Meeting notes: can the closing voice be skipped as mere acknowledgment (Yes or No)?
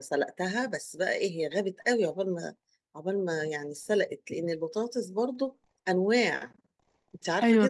No